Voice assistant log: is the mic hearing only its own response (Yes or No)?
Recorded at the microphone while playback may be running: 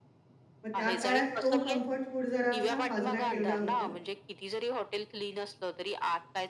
No